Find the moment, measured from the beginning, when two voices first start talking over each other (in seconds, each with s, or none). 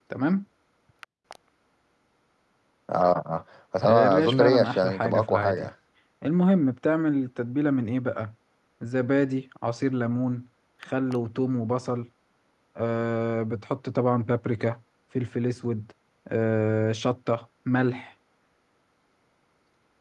3.8 s